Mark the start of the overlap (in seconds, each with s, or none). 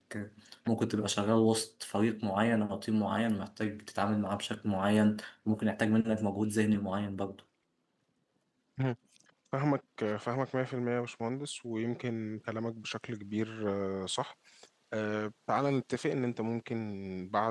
none